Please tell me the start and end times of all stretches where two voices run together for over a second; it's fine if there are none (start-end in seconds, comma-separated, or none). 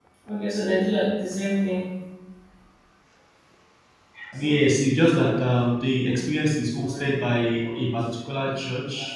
none